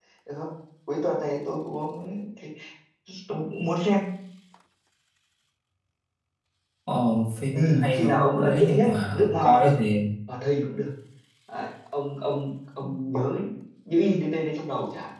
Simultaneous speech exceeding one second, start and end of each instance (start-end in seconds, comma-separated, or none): 7.5-9.7